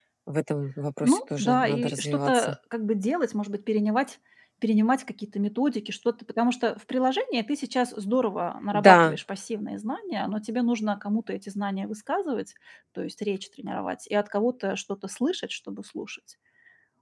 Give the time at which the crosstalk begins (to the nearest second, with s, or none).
1 s